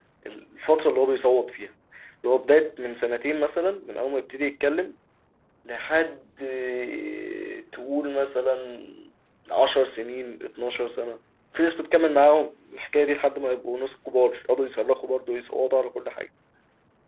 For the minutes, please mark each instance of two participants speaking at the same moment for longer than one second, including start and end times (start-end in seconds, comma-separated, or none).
none